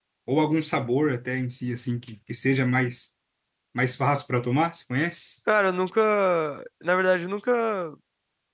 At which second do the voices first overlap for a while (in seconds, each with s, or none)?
none